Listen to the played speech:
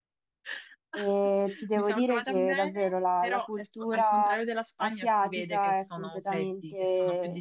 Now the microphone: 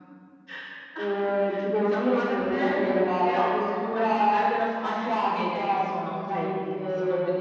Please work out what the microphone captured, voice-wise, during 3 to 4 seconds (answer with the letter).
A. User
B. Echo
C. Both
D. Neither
B